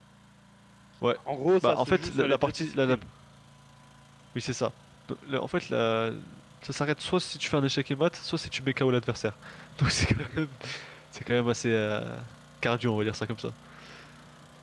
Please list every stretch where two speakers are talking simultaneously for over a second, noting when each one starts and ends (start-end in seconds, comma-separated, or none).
1.6-3.0